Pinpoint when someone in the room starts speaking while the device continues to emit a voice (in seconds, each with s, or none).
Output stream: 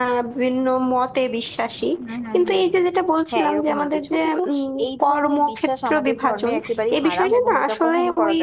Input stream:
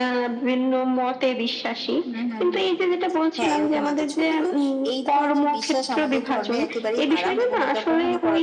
none